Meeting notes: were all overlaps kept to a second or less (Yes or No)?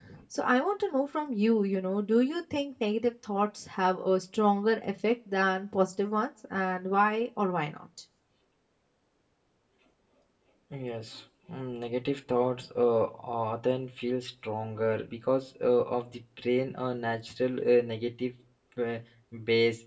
Yes